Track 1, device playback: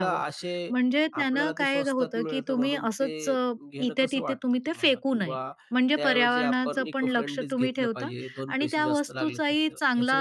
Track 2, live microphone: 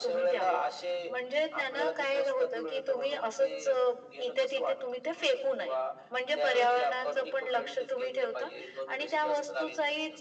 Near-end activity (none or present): none